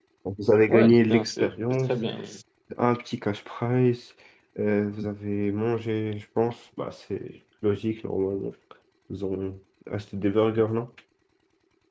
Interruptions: present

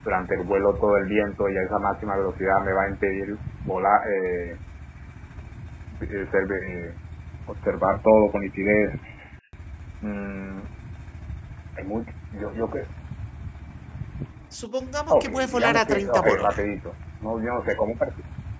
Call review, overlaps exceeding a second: present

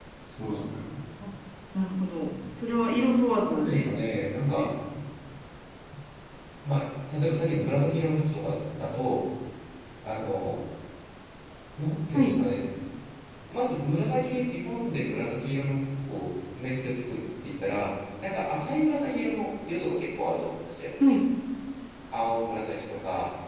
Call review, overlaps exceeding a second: present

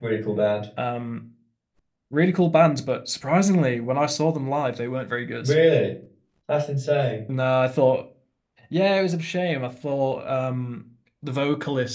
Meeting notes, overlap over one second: none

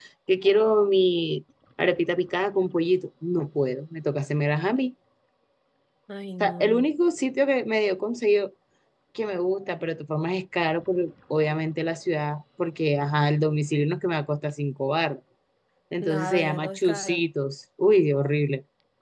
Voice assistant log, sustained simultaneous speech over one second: present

